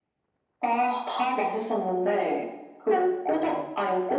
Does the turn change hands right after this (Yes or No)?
No